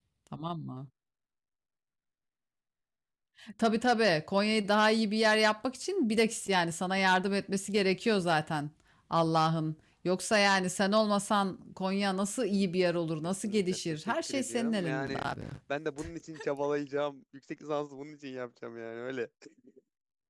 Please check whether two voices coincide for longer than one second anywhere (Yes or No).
Yes